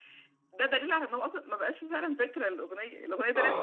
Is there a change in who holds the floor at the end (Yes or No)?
Yes